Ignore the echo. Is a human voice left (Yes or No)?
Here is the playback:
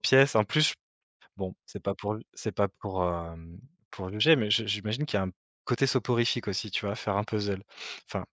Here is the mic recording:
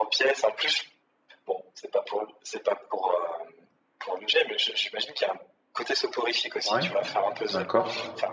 Yes